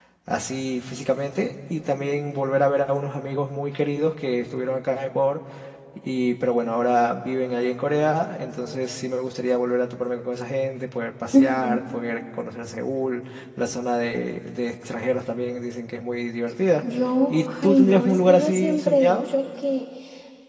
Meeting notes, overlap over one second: present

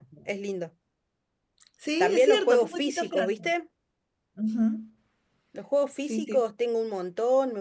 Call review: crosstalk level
present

